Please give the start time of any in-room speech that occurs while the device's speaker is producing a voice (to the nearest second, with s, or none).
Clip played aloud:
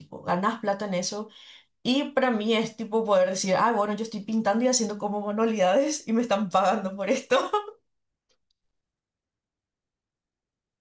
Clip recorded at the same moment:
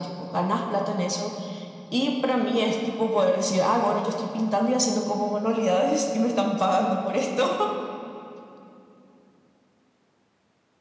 none